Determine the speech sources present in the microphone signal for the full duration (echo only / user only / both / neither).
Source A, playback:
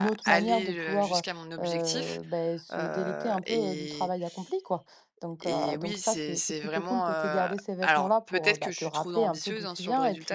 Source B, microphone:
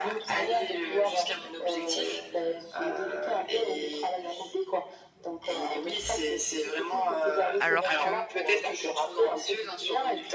both